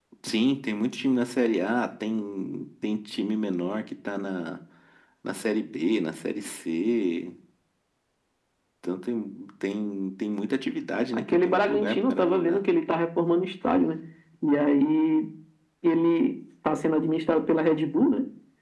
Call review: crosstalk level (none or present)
present